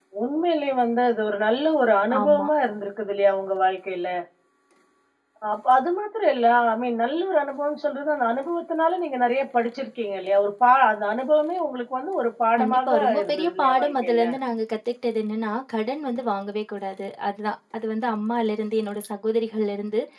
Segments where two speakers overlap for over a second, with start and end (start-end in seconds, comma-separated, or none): 12.6-14.3